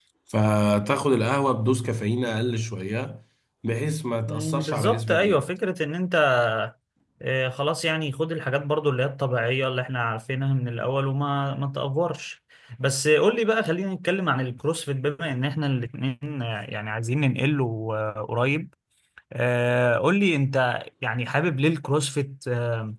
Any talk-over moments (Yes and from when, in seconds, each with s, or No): Yes, from 4.3 s